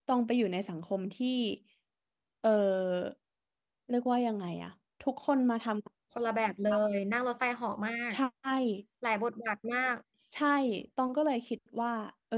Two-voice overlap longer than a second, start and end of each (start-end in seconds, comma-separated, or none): none